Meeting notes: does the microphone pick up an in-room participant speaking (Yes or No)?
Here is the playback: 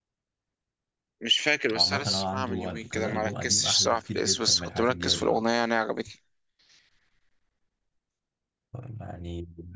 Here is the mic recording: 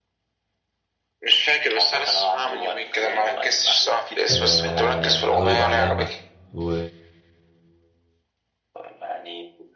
Yes